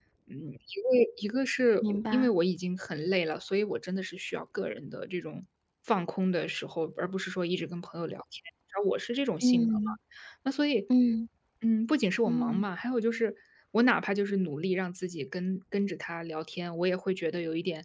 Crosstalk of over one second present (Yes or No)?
No